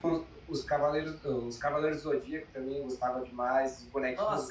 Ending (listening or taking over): taking over